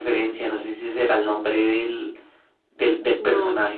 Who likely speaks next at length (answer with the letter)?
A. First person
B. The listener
A